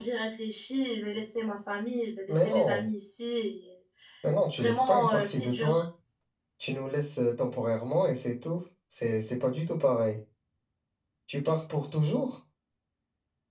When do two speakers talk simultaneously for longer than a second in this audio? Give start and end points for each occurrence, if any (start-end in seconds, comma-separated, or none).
4.6-5.8